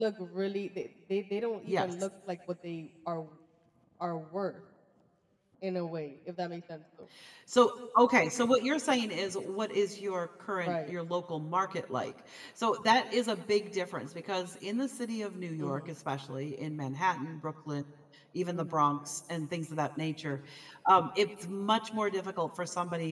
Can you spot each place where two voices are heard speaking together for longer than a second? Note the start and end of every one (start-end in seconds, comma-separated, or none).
none